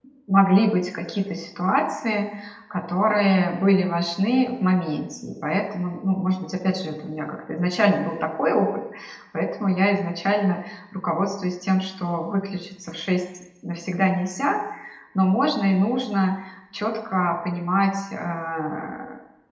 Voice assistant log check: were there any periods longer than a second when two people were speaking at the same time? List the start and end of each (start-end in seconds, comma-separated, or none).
none